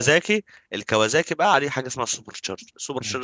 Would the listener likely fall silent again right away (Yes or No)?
Yes